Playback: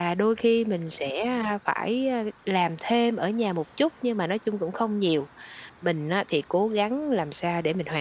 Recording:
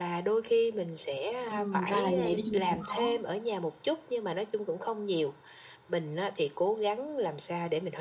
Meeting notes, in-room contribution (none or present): present